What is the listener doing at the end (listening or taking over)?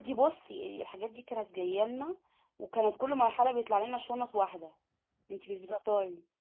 taking over